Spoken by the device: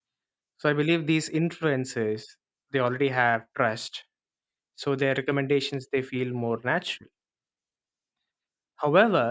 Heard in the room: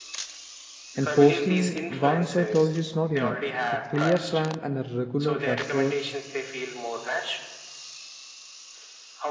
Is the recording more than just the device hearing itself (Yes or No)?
Yes